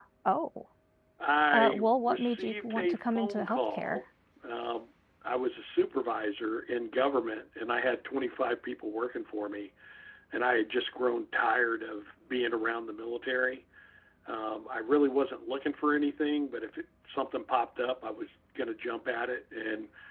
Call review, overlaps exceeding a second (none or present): present